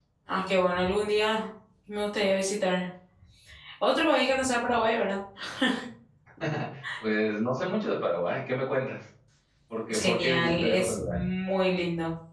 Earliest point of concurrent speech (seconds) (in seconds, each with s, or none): 9.9 s